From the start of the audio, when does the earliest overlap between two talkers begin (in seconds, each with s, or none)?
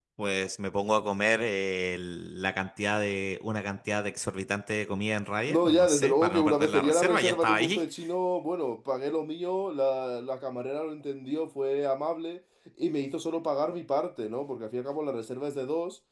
5.5 s